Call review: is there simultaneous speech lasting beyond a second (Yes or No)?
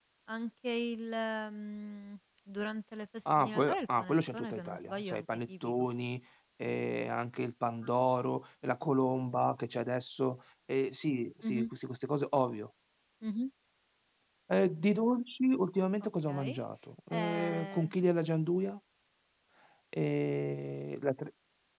Yes